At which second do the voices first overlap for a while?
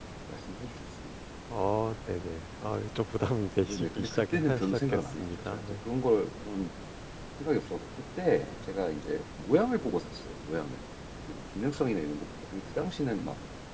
3.7 s

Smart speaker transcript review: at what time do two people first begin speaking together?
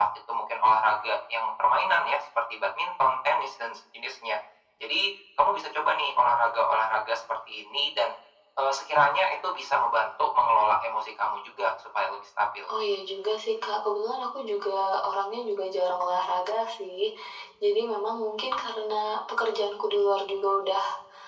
none

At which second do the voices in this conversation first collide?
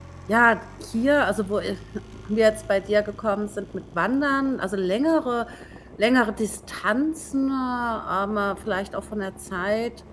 none

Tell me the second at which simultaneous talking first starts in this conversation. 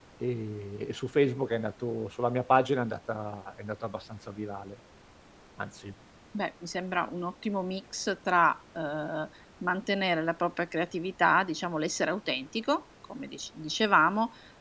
none

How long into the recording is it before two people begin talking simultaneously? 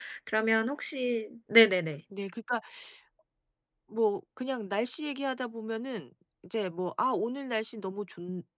none

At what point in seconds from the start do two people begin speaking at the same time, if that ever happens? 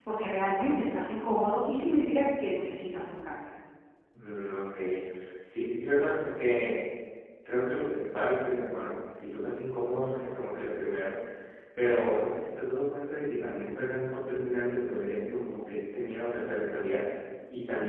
none

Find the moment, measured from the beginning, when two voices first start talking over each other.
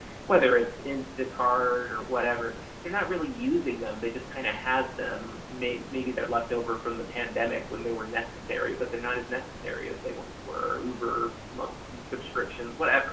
none

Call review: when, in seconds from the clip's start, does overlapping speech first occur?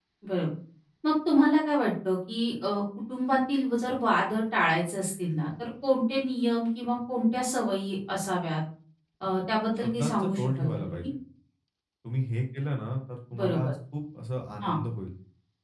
9.8 s

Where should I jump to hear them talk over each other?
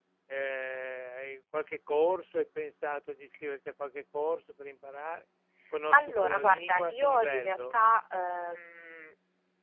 5.9 s

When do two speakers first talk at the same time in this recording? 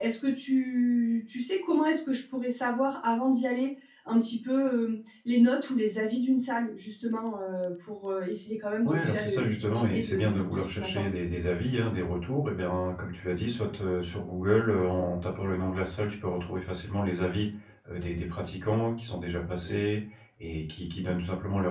8.8 s

